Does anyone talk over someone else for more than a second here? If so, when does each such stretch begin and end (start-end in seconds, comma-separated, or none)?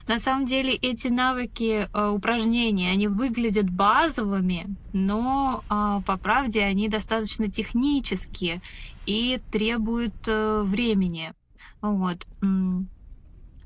none